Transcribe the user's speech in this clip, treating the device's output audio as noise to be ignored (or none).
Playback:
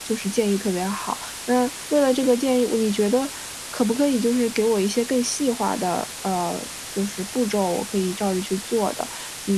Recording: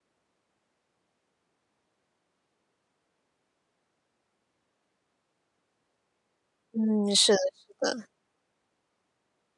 嗯，是的是的。